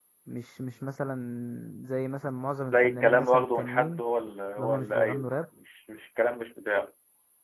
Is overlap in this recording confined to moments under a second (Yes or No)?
No